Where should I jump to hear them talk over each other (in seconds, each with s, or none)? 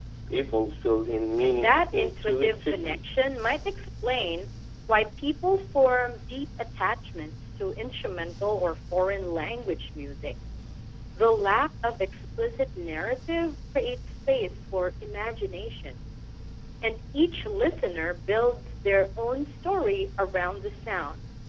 1.4 s